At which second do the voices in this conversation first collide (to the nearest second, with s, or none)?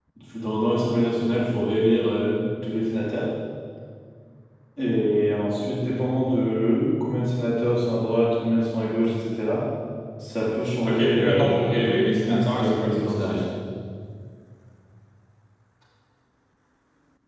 11 s